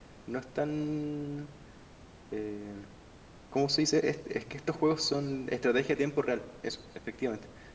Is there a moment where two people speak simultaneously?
No

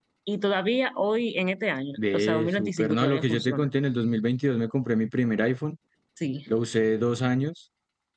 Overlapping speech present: Yes, from 2.0 s

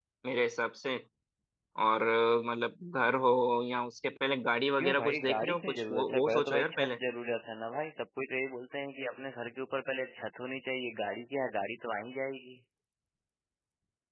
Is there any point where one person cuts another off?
Yes, from 4.8 s

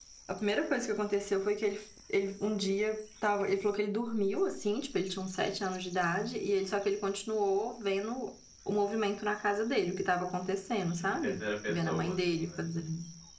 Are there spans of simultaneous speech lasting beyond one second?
Yes, from 11.1 s

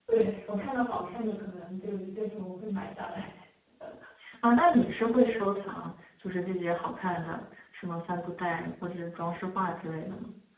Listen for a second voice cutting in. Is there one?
No

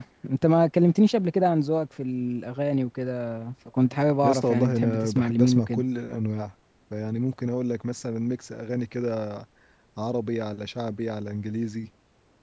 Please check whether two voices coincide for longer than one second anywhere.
Yes, from 4.2 s

